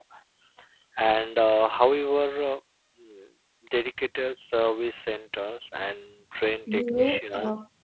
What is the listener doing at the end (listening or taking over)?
taking over